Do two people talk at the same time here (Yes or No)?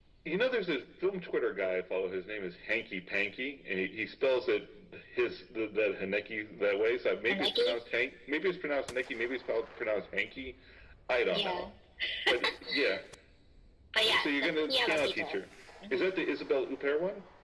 Yes